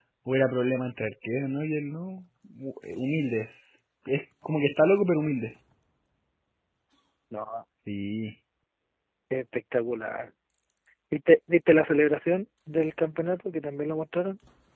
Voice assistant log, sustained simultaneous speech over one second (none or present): none